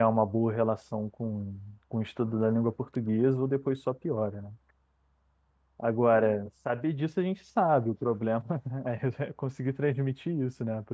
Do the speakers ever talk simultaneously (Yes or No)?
No